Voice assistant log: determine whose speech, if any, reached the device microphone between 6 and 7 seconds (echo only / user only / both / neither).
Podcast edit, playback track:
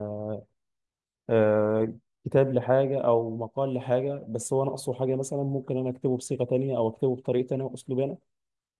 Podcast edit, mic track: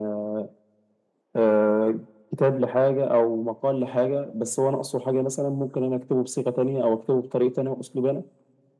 echo only